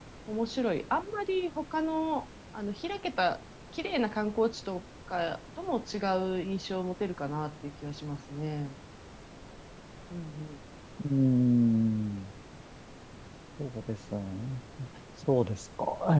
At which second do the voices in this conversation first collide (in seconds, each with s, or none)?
none